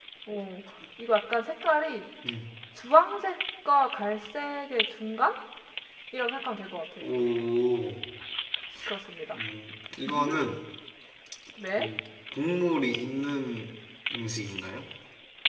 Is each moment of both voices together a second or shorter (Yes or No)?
Yes